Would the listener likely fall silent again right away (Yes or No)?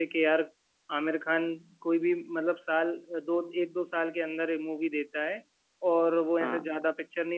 Yes